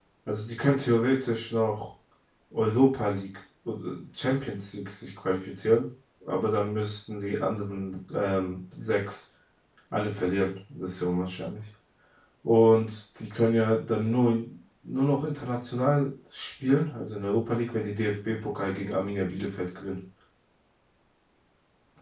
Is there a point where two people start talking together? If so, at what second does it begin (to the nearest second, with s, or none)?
none